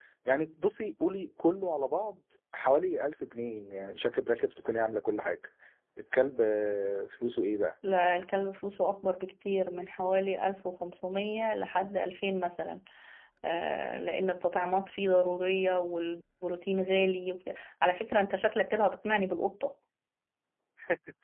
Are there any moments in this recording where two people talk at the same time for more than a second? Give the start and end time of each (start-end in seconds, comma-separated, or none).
none